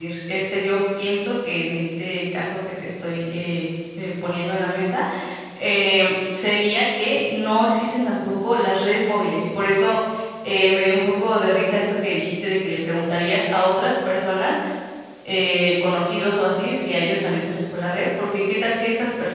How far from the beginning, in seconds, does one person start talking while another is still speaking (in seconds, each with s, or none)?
none